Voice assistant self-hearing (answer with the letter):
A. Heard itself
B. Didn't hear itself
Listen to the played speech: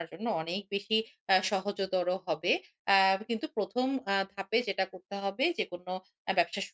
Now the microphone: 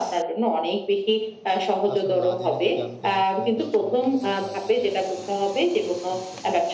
A